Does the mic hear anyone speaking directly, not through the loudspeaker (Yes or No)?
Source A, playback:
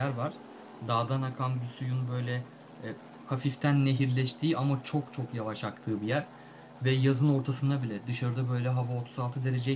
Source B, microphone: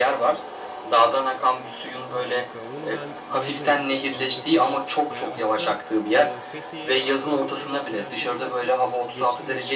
Yes